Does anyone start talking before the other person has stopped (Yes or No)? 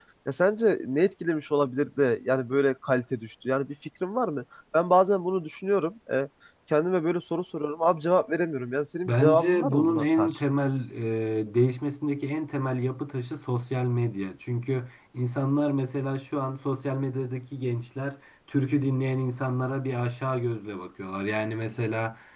Yes